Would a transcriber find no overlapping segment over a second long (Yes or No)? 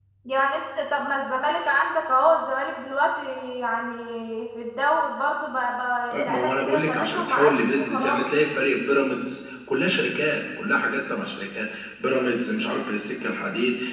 No